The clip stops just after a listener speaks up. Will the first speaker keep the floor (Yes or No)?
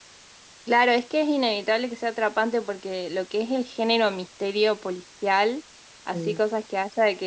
Yes